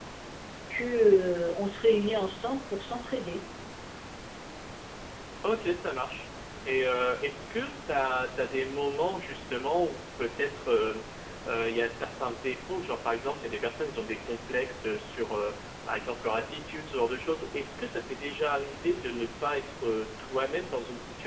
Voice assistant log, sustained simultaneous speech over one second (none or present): none